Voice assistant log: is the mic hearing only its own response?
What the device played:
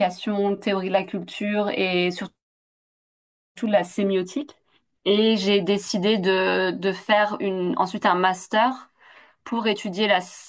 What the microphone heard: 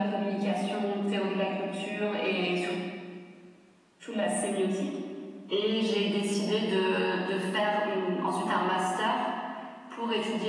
Yes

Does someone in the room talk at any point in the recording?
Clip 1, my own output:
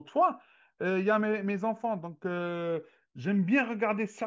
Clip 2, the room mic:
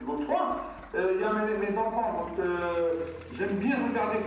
No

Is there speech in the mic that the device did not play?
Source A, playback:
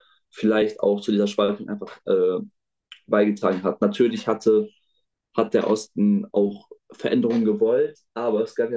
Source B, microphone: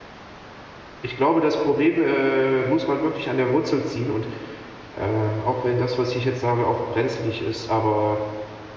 Yes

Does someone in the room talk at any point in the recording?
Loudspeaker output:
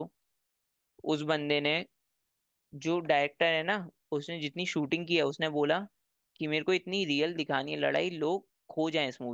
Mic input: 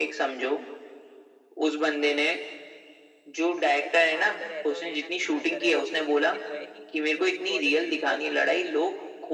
Yes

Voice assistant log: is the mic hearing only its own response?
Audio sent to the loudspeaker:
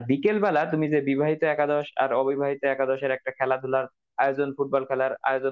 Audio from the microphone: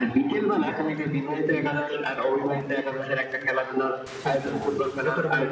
No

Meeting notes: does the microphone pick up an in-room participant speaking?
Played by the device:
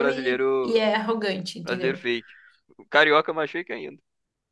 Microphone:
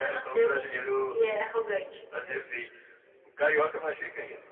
No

